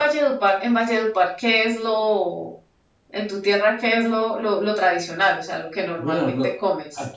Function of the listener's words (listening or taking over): taking over